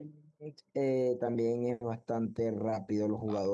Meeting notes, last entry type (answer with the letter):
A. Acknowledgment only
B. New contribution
B